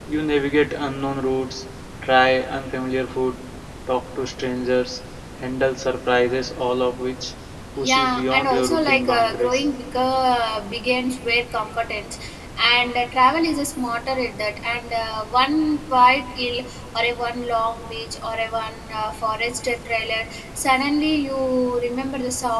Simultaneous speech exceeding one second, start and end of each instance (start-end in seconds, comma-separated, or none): 7.8-9.6